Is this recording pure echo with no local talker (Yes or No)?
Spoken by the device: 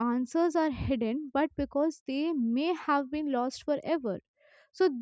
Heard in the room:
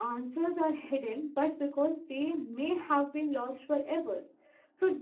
Yes